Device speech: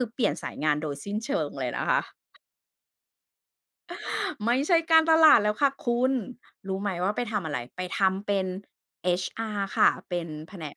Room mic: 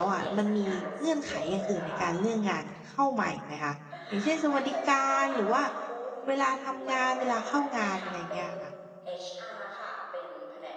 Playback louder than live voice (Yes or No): No